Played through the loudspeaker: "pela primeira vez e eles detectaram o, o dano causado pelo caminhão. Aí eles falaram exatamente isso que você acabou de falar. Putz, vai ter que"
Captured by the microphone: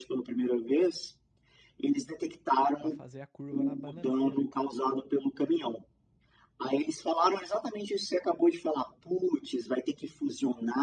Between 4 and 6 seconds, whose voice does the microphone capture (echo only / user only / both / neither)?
both